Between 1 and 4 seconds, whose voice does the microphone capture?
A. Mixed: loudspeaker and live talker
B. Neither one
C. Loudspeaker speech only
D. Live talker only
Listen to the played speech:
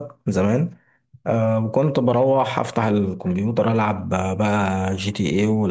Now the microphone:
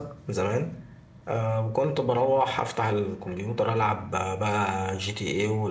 C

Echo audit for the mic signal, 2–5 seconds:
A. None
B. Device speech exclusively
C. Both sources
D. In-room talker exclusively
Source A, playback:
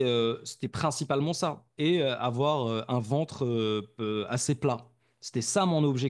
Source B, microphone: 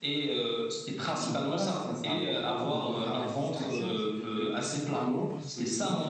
C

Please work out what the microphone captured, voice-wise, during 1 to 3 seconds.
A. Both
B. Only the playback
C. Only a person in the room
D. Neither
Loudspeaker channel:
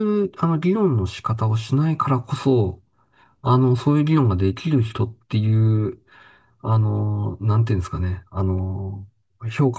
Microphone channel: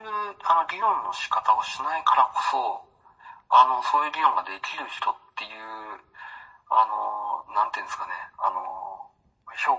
B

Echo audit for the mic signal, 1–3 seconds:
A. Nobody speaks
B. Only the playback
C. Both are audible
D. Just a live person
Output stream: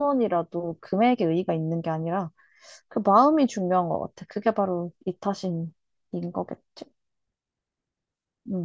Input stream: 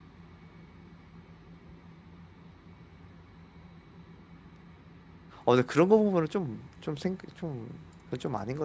A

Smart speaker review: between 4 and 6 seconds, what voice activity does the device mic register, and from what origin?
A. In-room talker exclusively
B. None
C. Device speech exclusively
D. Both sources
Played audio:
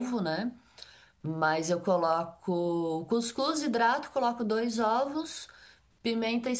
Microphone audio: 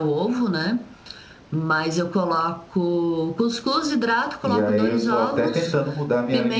D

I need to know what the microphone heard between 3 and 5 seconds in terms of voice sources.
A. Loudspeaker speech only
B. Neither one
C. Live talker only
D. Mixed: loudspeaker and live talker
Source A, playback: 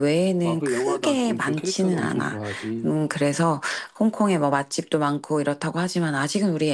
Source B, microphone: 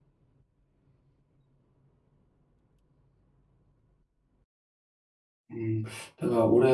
B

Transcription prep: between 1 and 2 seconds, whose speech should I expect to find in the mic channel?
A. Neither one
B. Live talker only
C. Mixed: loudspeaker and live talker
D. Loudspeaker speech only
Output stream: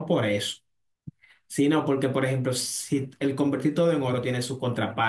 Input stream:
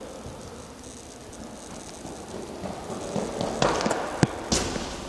A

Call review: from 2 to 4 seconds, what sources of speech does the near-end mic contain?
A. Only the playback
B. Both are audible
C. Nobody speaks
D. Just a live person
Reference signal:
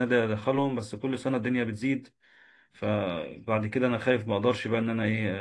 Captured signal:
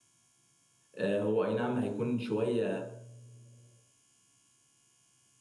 D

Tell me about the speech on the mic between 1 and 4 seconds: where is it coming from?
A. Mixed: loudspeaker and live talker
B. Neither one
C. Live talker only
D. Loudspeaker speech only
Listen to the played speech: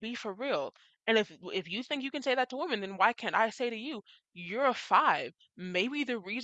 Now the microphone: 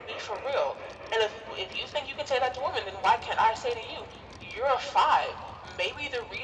D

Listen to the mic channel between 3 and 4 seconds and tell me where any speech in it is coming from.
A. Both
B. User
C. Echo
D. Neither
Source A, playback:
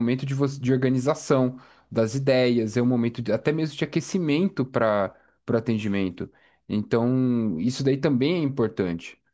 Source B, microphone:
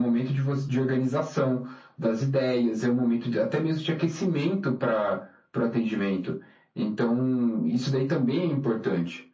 C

